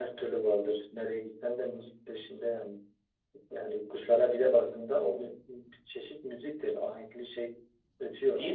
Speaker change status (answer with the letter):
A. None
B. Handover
B